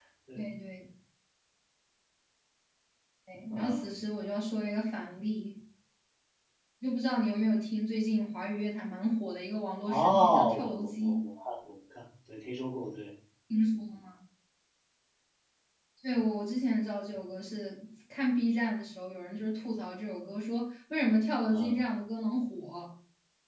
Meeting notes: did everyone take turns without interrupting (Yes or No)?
No